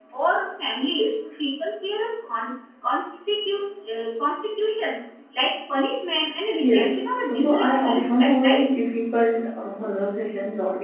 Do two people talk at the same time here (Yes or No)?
Yes